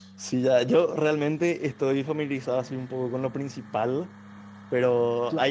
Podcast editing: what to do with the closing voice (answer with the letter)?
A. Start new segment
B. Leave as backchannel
B